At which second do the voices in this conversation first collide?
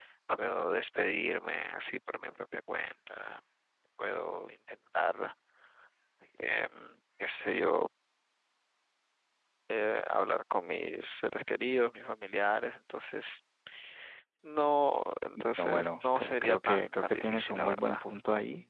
15.4 s

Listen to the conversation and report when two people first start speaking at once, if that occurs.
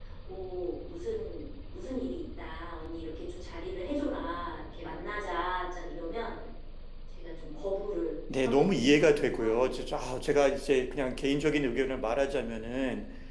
8.3 s

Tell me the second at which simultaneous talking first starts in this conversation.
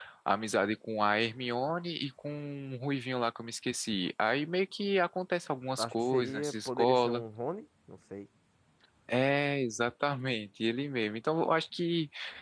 5.8 s

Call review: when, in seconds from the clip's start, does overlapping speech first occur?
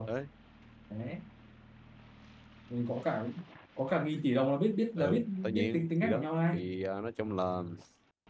5.0 s

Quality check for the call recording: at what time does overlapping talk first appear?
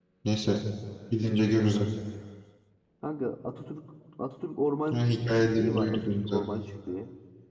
4.9 s

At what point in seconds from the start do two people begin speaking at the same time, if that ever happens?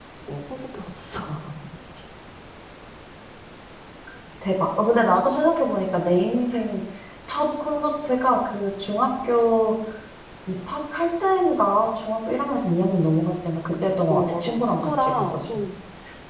14.1 s

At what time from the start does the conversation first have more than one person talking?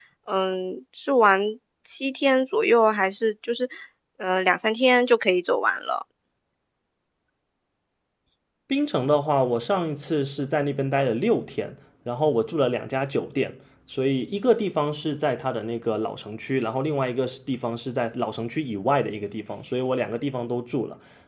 none

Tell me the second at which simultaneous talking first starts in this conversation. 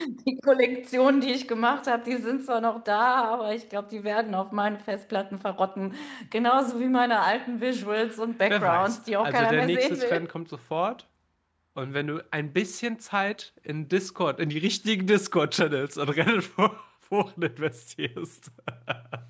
8.5 s

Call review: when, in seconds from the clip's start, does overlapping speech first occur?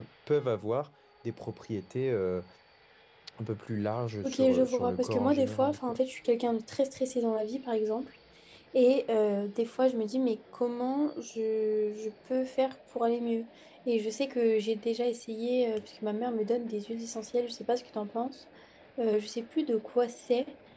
4.2 s

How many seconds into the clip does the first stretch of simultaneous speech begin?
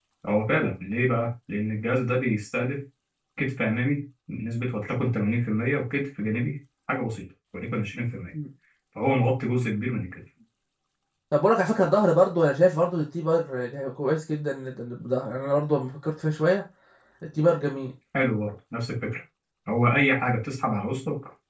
none

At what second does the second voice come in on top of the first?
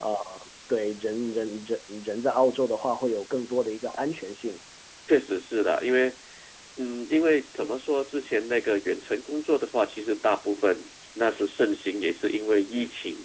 none

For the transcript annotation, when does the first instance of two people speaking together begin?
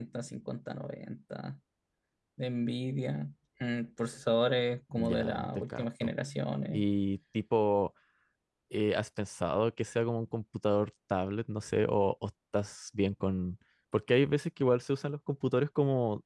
4.9 s

